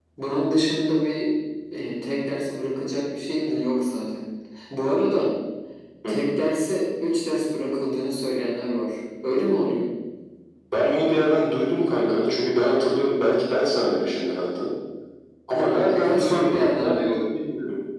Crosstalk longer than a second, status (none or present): present